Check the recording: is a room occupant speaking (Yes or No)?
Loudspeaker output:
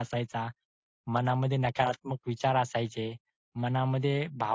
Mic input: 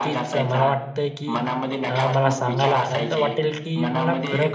Yes